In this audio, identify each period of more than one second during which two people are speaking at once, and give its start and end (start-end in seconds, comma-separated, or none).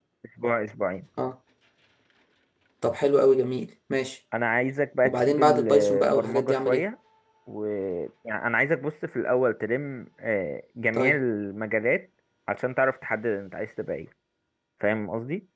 5.0-6.8